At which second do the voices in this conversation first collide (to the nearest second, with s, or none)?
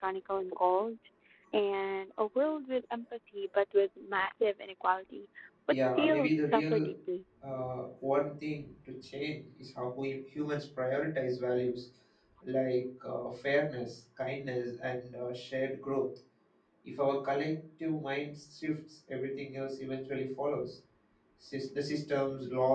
6 s